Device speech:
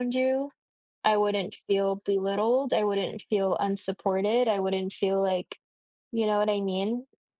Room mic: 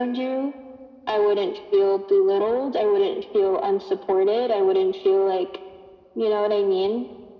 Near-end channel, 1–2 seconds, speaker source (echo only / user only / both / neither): echo only